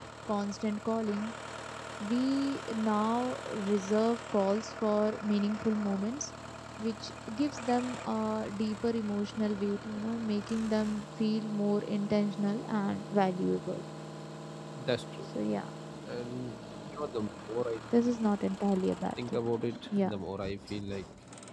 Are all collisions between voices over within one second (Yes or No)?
Yes